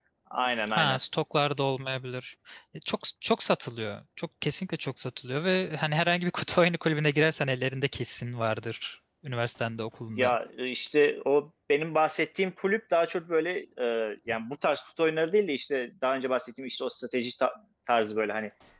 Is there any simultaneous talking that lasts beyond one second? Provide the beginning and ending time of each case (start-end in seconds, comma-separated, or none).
none